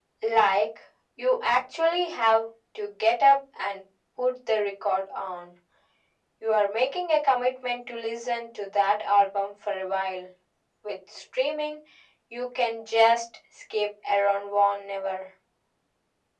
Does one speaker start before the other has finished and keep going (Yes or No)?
No